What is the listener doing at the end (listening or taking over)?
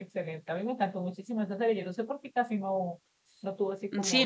taking over